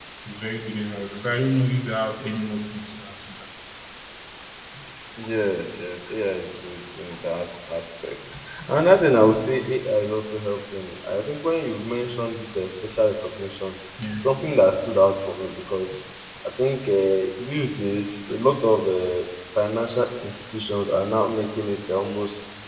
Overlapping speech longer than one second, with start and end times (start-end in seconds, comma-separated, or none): none